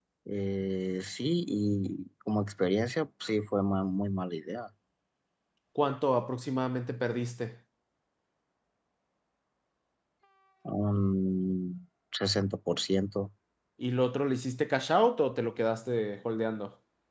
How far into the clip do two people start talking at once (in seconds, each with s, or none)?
none